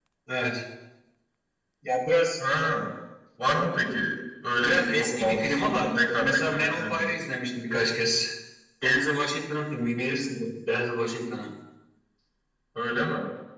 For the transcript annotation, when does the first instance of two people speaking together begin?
4.6 s

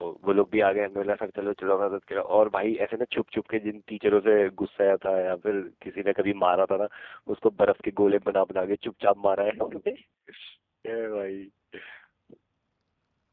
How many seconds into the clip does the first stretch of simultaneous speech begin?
none

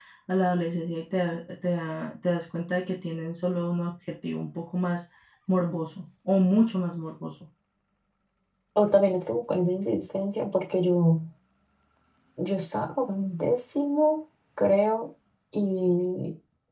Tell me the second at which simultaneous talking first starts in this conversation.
none

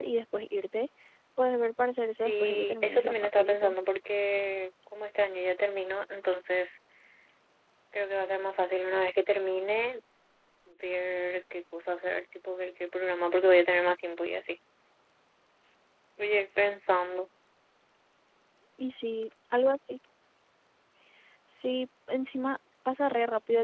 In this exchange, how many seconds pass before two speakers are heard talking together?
2.2 s

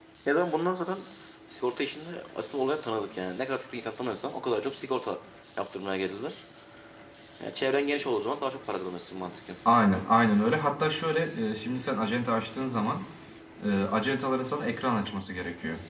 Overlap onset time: none

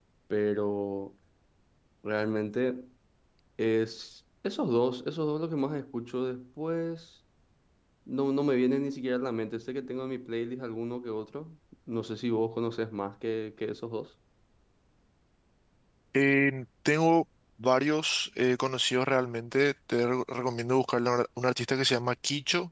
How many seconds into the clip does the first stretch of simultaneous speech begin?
none

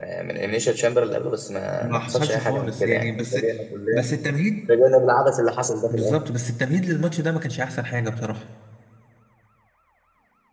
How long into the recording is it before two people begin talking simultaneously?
1.8 s

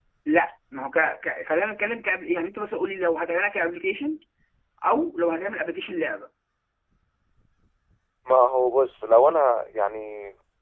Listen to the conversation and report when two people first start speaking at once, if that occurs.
none

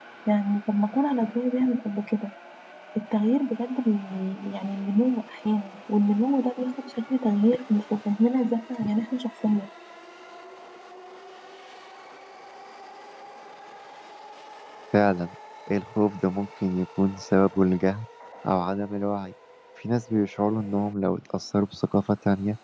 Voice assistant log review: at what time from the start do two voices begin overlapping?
none

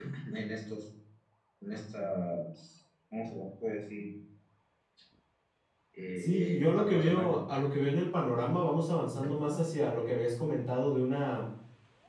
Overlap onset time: 6.2 s

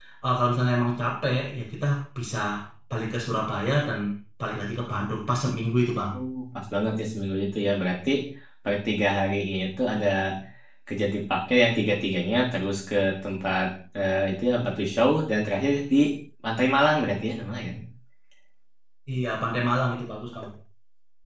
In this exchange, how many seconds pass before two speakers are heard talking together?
none

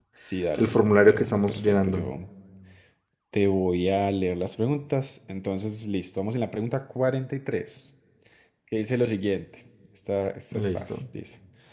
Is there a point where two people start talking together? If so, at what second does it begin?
0.6 s

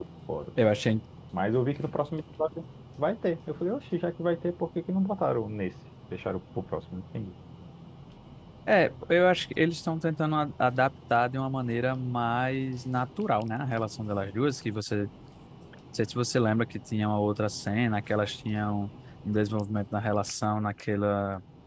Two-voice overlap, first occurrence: none

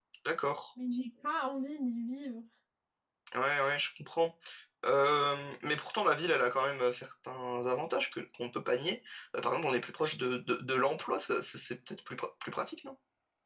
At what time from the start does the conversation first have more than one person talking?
none

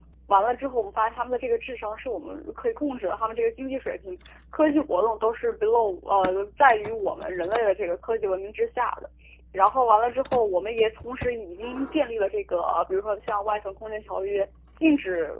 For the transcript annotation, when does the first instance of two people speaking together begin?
none

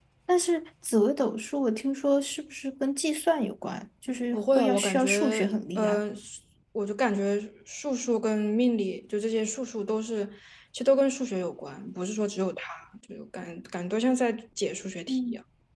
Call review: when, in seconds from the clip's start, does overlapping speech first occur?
4.3 s

